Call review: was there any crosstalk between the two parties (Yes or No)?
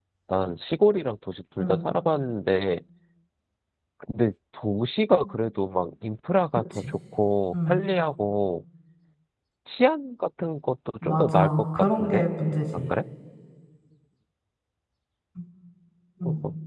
Yes